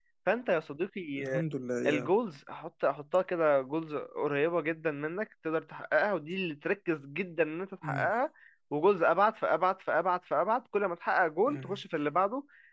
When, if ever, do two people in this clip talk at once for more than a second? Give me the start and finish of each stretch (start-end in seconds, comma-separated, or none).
none